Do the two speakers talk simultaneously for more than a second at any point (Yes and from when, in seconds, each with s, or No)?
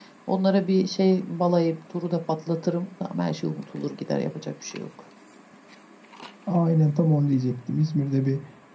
No